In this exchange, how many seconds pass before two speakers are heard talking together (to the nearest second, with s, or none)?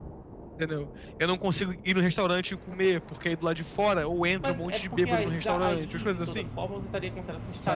4 s